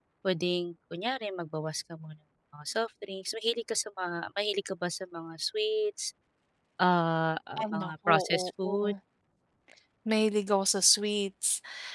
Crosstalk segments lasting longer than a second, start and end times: 7.6-8.9

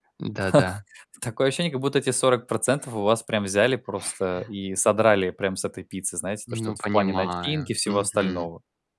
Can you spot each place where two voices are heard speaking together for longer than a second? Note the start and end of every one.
6.5-8.5

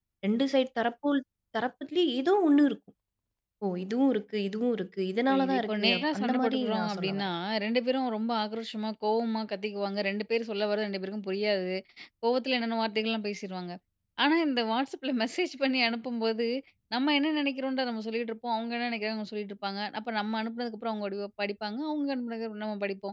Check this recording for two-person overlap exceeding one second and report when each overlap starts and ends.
5.3-7.3

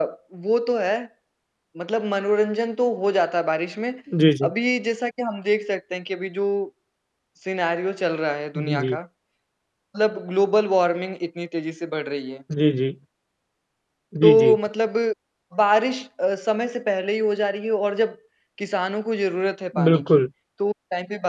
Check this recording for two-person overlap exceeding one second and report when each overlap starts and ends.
none

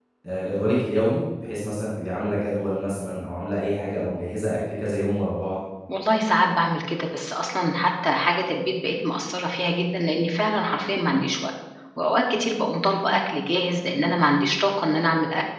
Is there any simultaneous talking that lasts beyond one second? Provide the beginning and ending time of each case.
none

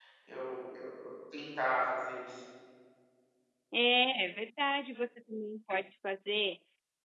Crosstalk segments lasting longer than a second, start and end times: none

